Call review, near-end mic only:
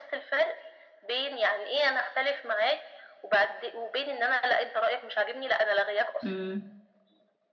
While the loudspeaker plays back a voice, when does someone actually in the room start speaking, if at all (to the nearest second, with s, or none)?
6 s